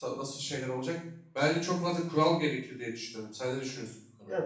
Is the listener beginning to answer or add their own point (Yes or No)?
Yes